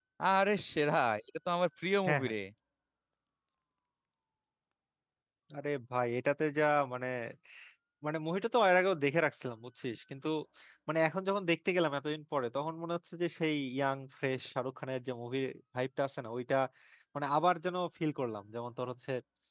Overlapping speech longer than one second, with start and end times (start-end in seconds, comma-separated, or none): none